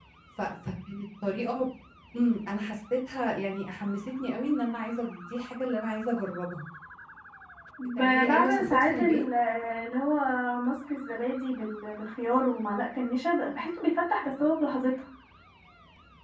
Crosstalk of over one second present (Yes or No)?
Yes